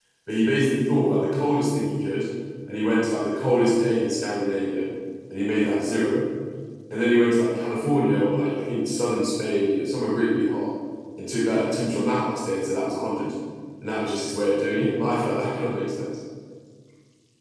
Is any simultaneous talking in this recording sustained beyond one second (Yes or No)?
No